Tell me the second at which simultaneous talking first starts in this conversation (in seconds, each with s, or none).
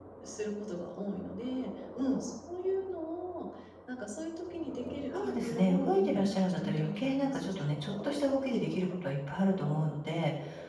5.1 s